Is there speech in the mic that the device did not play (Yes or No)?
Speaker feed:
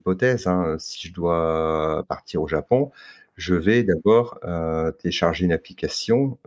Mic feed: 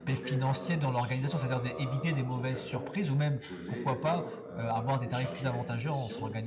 Yes